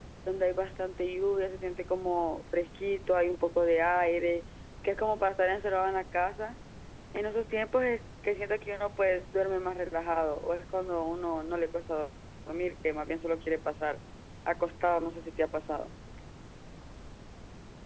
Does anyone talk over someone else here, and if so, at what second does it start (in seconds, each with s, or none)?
none